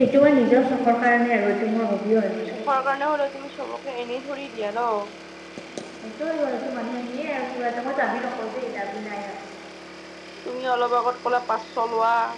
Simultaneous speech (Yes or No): No